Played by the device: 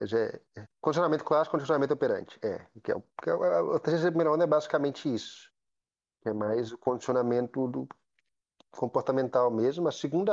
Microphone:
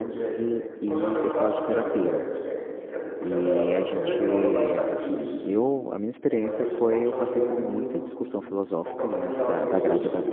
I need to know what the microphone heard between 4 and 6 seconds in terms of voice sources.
both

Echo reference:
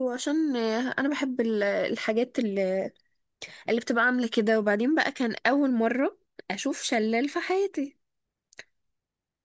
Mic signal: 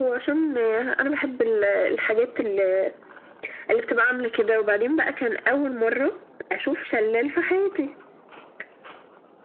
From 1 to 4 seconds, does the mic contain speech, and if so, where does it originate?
echo only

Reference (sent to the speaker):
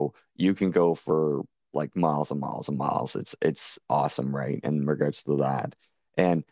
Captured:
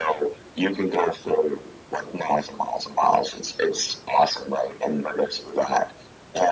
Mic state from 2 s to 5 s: echo only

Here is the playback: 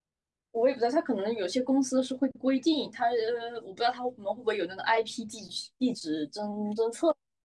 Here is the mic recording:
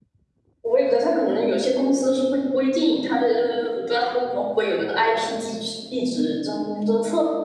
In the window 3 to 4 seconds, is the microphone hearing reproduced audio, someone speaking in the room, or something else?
echo only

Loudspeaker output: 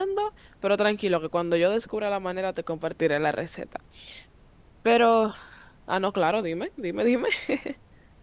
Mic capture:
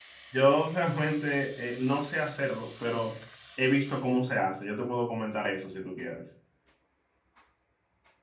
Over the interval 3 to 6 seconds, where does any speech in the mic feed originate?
user only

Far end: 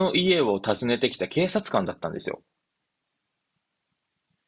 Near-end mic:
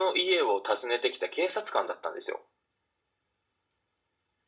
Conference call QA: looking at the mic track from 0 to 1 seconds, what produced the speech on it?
echo only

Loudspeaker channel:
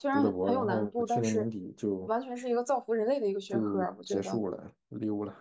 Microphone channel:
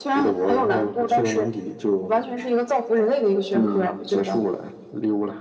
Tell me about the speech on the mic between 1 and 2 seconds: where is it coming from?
echo only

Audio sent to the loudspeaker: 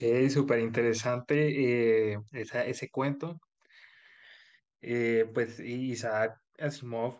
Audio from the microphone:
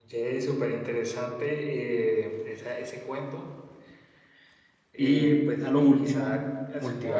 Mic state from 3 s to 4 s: echo only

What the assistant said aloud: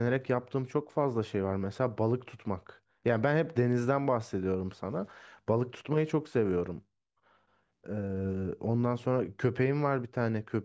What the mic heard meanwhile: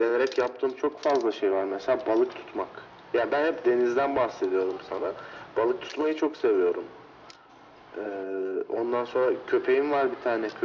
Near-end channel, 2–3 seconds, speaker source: echo only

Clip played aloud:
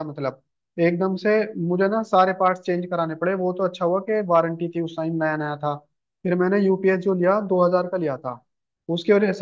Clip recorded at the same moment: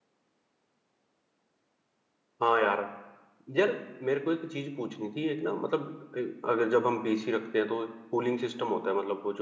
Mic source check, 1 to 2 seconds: neither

